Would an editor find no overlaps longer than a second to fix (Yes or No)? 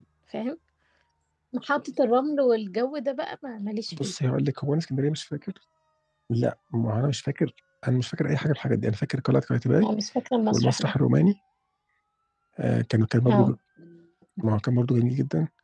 Yes